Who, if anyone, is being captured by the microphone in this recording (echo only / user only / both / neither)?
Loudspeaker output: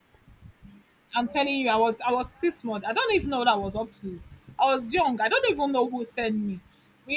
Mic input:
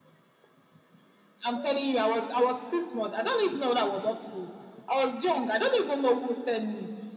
echo only